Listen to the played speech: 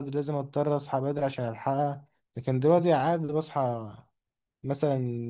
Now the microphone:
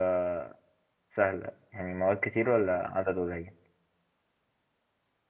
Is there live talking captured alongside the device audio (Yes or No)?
Yes